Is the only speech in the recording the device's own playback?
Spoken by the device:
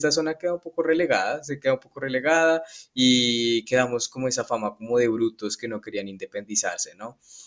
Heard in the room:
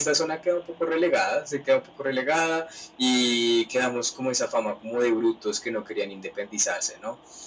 Yes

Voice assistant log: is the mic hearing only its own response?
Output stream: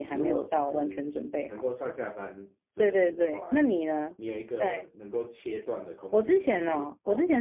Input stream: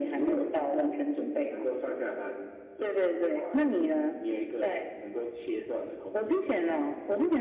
Yes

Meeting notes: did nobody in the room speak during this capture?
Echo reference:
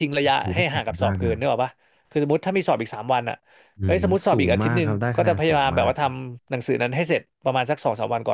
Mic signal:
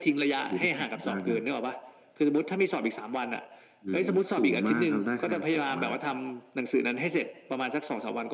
Yes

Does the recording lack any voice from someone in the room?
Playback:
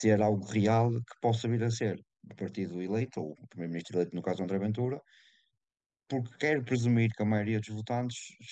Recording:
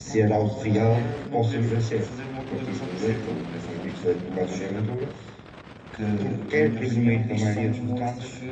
No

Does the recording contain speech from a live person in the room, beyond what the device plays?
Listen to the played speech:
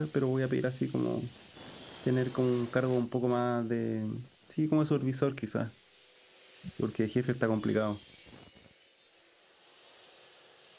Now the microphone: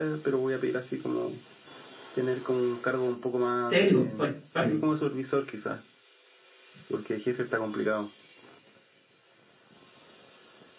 Yes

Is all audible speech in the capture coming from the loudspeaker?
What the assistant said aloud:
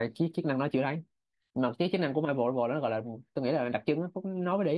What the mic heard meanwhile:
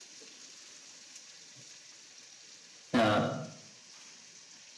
No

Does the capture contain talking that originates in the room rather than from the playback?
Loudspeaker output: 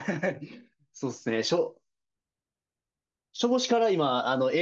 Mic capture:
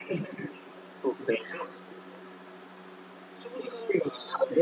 No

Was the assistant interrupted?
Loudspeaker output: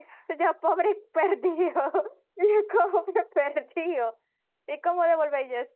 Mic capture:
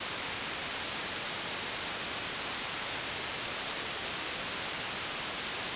No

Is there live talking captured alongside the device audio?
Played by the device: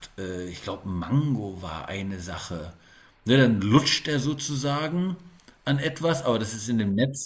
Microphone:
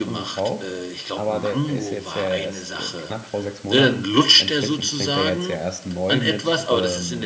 Yes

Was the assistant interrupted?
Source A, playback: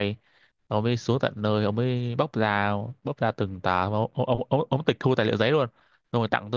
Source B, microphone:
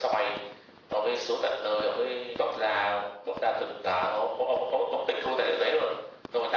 No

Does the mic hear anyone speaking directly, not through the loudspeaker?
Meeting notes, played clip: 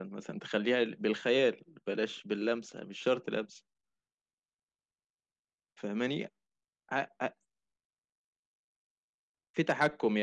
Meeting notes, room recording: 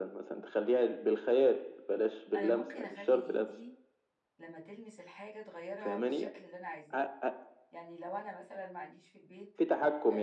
Yes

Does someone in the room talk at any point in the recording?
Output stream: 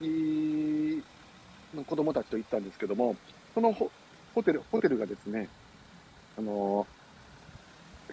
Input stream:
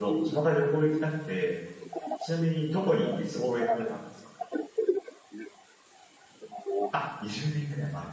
Yes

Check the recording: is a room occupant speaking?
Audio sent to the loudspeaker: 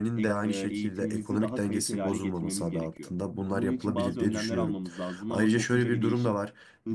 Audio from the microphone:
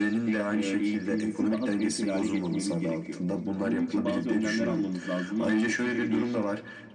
No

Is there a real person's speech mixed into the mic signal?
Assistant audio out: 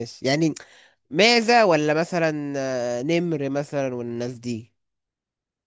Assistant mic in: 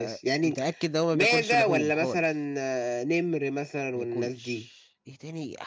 Yes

